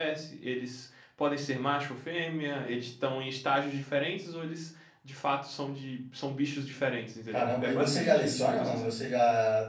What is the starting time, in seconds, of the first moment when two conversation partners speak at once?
7.3 s

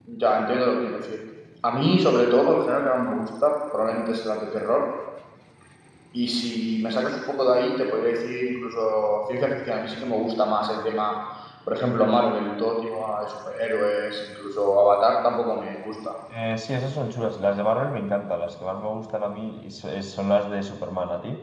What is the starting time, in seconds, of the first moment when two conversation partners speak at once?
none

